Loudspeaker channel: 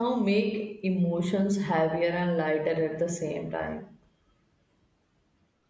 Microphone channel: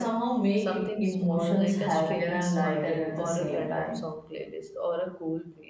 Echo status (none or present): present